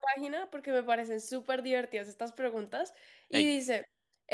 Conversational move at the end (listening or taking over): listening